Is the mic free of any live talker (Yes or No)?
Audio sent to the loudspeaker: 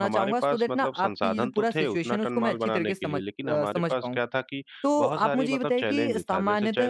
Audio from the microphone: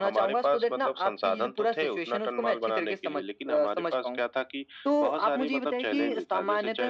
Yes